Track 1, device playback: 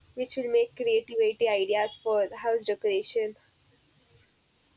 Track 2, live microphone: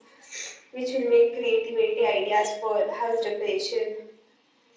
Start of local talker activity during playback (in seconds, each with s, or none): none